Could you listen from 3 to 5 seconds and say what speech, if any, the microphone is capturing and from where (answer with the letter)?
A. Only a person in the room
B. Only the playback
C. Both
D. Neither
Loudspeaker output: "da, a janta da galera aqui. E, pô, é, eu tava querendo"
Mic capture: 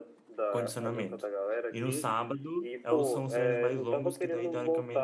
C